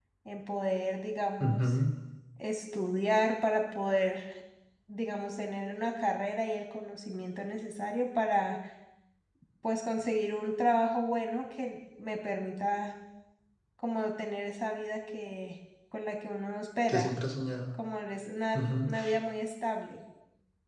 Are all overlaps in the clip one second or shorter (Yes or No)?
Yes